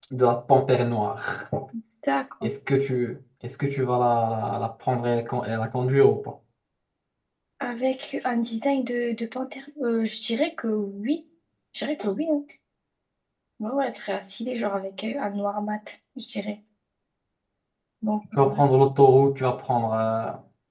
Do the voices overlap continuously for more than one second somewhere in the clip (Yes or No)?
No